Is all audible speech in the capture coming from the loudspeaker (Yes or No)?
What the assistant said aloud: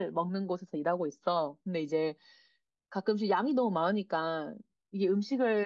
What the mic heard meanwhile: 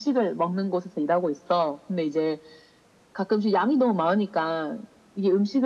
Yes